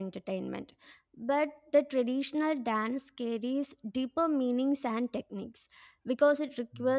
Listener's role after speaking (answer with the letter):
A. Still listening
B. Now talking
A